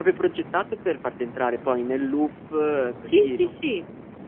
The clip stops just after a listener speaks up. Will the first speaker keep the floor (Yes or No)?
No